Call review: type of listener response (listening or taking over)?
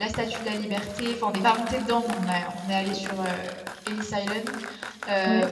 listening